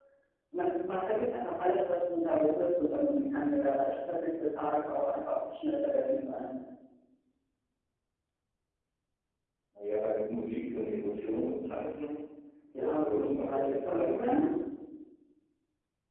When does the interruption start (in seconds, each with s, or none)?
12.8 s